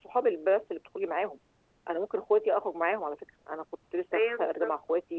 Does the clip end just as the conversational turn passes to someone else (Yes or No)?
No